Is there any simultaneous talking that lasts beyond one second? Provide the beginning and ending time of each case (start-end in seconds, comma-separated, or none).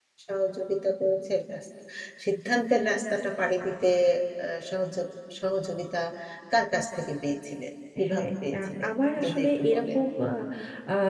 8.1-10.0